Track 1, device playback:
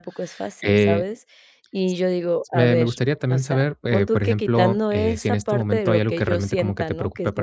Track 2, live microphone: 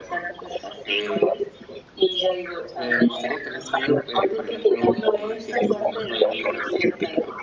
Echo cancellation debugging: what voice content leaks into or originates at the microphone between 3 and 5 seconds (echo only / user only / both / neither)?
echo only